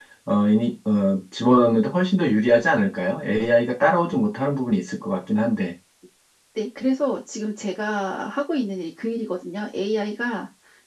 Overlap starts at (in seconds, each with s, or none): none